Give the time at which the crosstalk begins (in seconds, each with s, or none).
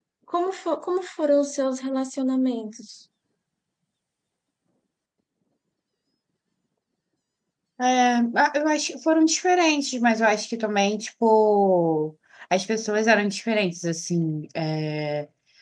none